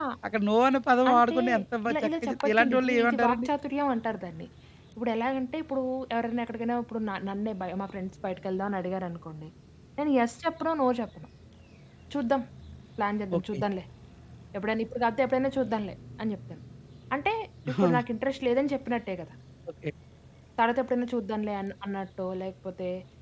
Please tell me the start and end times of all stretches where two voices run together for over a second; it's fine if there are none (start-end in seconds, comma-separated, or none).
1.9-3.5